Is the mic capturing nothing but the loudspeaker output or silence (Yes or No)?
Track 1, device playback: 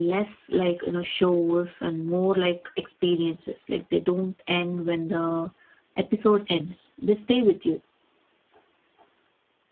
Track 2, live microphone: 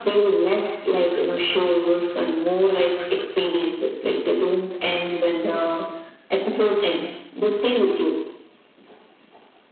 Yes